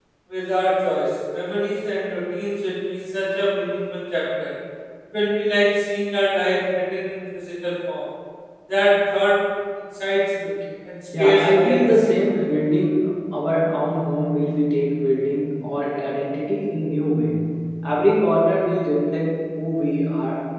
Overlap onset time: 11.1 s

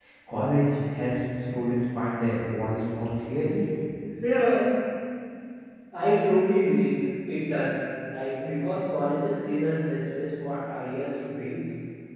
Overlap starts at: none

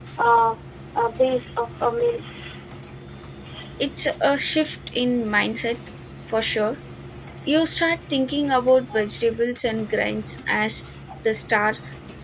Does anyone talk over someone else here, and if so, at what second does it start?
none

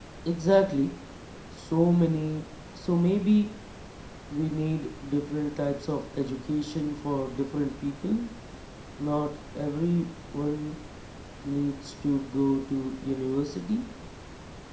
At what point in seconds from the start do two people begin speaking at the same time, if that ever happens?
none

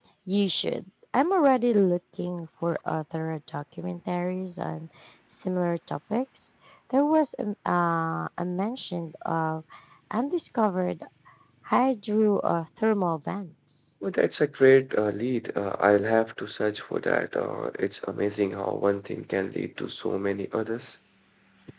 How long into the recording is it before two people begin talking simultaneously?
none

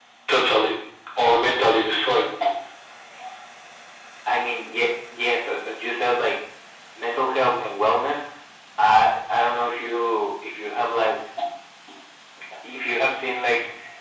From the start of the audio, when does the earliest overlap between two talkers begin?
none

